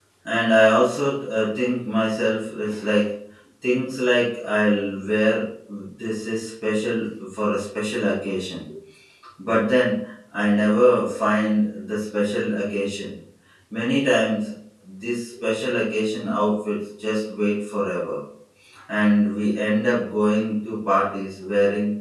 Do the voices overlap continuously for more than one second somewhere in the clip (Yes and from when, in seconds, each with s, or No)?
No